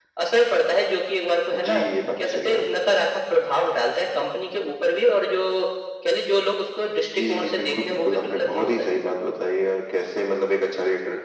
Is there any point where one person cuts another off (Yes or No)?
Yes